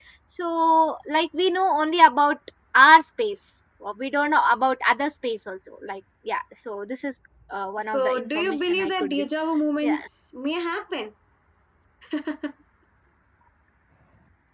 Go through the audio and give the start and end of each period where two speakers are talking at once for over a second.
7.9-9.3

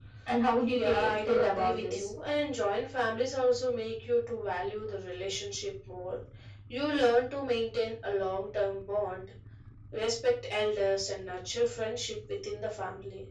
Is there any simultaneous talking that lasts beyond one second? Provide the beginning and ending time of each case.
0.7-2.1

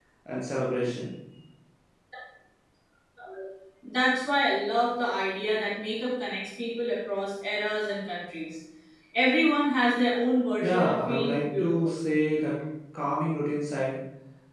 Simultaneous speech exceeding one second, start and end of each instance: 10.6-12.0

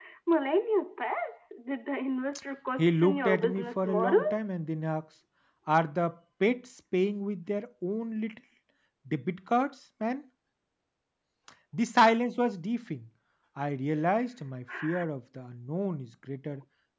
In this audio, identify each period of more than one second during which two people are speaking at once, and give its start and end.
2.8-4.4

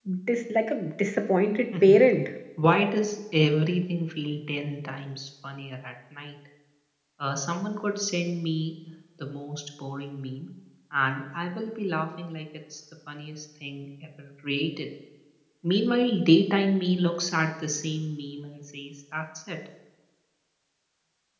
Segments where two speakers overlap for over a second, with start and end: none

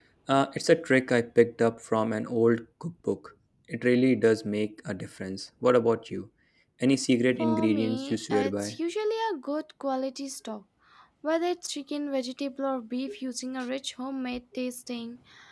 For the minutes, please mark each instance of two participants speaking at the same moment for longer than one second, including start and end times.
7.4-8.8

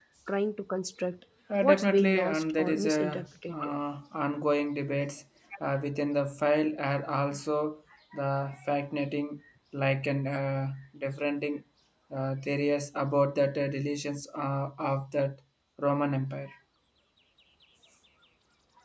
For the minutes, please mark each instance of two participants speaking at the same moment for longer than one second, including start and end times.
1.6-3.7

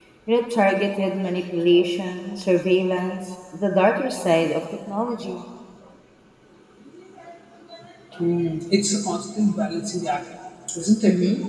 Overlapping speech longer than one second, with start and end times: none

